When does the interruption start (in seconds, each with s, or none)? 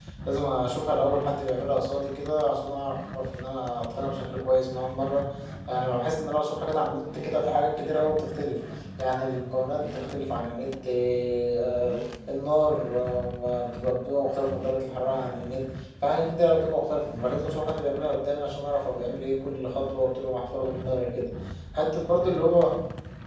none